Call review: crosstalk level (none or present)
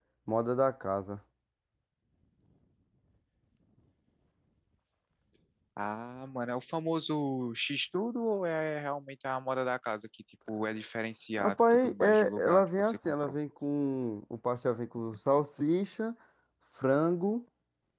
present